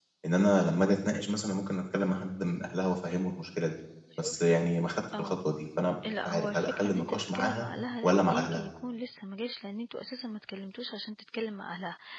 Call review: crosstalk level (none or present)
present